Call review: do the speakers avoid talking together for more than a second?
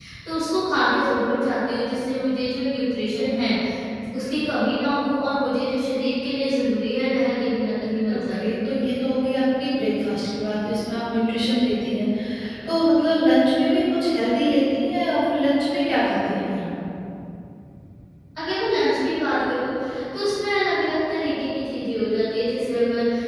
Yes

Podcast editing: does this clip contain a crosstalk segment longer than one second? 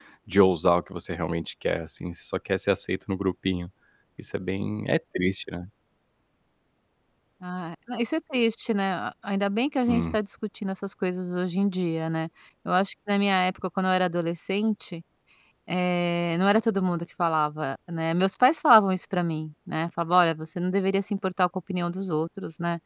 No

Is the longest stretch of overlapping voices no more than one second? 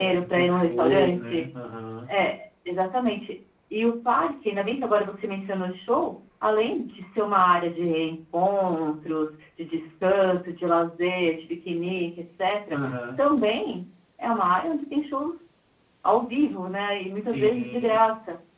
No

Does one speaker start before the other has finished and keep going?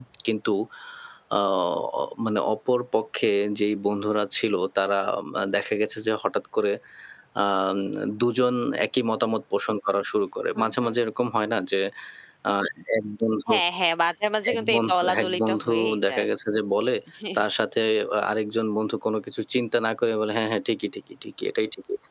Yes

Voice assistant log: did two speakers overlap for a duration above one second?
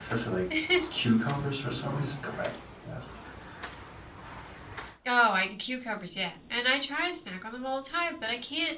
No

